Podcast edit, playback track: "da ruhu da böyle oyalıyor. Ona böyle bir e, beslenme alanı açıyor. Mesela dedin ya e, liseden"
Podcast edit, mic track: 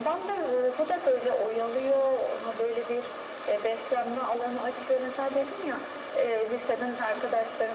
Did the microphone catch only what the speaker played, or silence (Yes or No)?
Yes